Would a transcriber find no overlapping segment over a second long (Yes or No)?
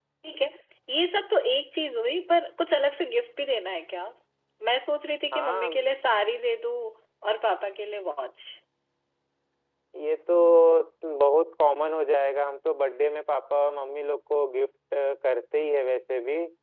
Yes